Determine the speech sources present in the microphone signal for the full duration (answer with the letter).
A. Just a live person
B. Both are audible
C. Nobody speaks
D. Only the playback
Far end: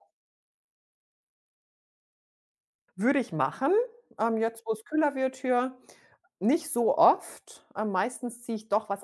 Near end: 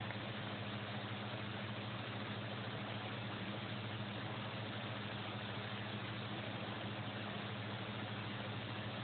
C